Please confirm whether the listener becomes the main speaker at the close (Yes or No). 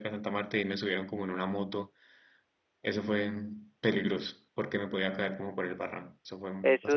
Yes